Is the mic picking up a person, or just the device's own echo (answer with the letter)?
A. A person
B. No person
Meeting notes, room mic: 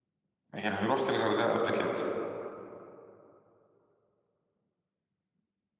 A